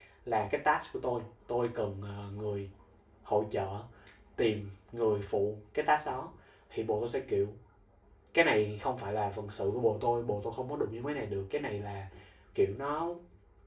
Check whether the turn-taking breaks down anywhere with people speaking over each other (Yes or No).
No